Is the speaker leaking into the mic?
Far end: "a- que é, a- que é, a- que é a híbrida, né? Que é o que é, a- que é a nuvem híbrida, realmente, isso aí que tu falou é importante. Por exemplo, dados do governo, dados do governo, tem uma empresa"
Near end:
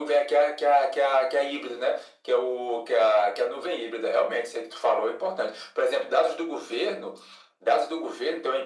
Yes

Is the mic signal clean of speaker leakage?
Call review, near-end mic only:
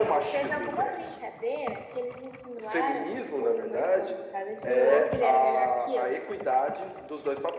No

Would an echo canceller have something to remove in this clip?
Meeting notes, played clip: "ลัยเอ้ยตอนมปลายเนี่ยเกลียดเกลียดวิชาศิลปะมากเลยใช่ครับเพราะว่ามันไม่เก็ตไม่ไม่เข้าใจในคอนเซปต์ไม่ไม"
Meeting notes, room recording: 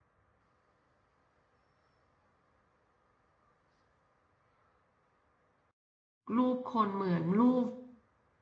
No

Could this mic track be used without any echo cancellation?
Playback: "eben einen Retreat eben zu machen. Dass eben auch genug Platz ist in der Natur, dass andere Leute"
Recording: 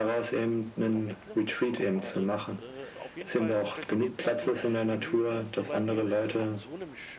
No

